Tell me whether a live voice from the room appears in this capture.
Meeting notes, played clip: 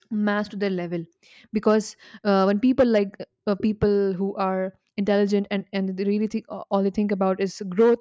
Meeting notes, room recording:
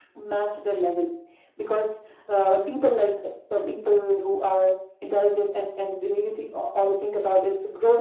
No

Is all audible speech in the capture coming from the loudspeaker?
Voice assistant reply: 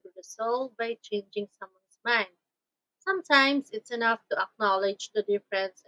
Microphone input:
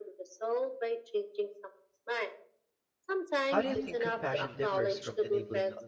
No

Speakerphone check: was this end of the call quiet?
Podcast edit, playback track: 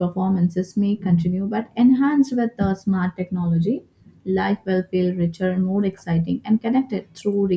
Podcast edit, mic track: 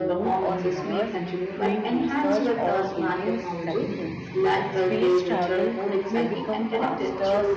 No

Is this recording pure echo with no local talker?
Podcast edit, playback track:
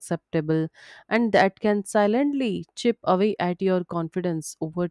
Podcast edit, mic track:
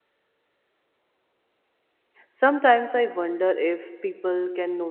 No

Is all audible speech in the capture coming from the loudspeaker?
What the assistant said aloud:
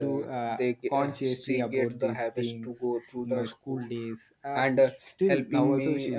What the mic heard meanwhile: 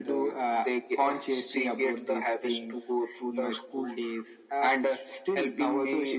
Yes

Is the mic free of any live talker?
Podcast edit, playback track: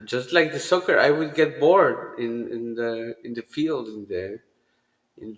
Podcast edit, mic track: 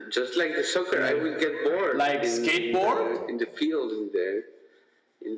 No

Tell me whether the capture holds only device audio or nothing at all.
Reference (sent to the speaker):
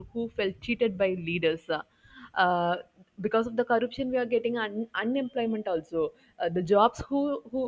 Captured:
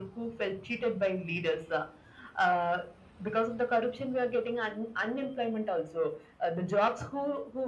Yes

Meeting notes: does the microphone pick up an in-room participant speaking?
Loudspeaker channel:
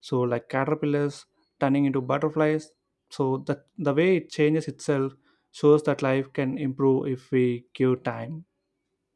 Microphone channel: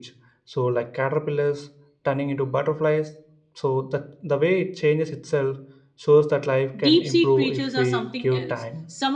Yes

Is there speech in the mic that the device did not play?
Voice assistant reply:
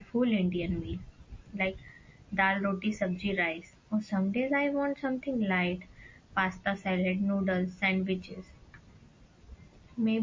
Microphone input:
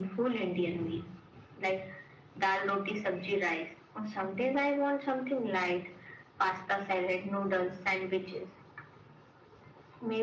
No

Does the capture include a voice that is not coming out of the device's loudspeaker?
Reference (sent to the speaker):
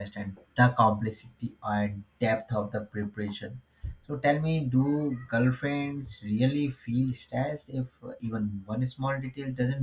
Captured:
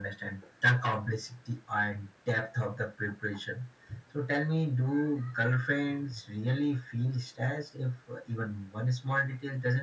No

